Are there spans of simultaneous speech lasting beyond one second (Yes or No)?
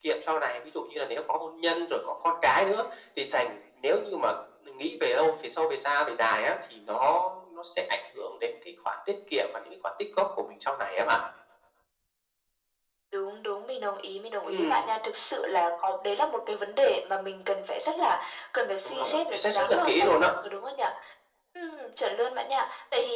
Yes